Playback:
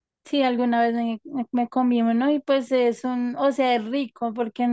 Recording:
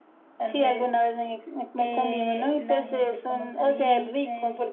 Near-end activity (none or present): present